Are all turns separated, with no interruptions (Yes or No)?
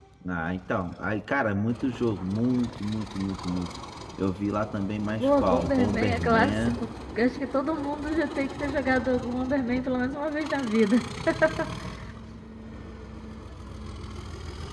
No